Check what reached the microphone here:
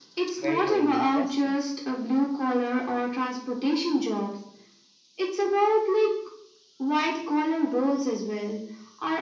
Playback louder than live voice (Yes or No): Yes